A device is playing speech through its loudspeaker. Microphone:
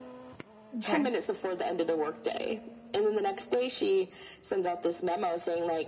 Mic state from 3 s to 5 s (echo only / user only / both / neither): echo only